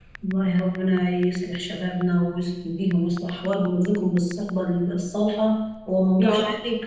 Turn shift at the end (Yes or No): No